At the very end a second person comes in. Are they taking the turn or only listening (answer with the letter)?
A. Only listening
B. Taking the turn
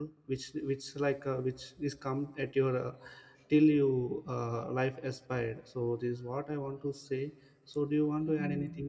B